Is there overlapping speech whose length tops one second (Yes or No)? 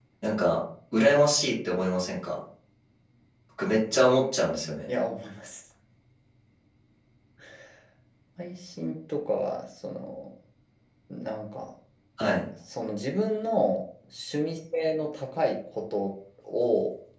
No